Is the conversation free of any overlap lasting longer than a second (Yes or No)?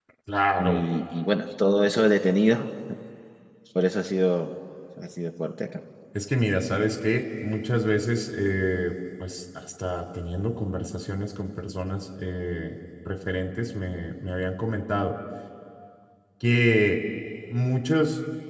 Yes